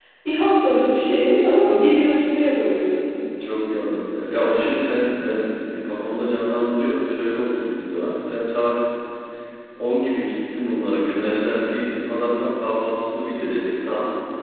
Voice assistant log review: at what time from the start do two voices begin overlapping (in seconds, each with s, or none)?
none